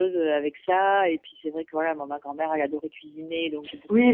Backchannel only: No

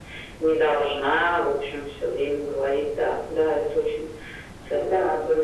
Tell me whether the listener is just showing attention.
No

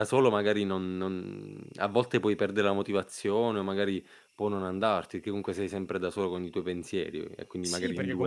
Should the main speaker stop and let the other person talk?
Yes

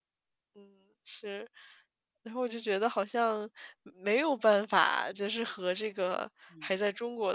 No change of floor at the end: Yes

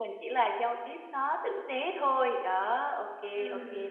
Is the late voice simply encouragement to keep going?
Yes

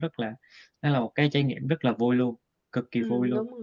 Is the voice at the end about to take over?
Yes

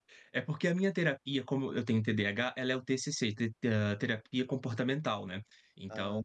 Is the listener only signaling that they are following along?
Yes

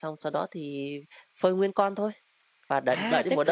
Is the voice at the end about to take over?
Yes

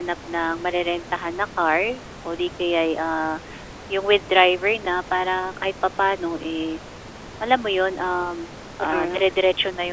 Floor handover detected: No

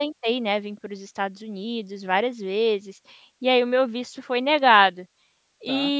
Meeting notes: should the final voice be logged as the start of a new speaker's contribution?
No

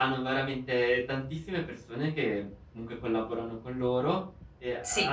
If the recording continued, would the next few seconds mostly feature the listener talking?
Yes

